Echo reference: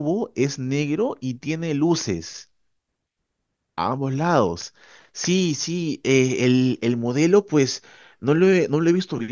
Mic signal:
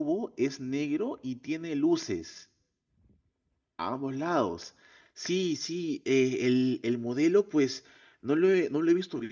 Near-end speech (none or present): none